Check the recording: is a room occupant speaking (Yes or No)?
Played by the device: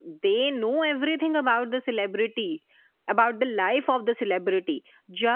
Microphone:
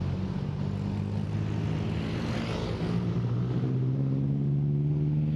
No